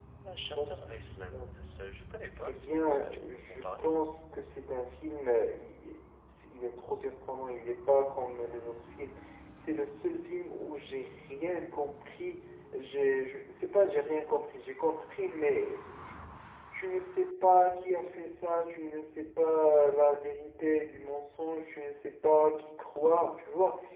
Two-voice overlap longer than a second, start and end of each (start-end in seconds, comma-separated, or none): 2.5-3.9